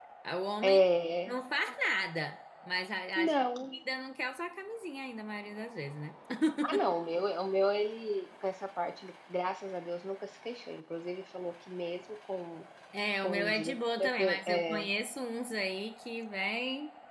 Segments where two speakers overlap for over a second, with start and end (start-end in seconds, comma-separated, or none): 13.2-14.9